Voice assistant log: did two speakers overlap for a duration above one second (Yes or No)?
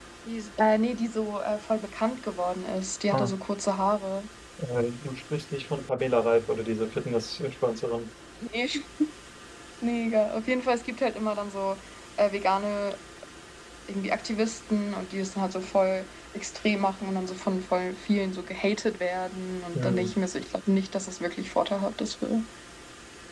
No